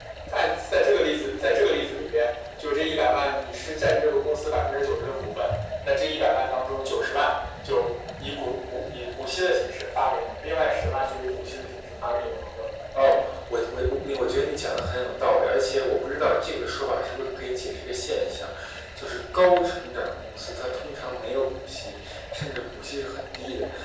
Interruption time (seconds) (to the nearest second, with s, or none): none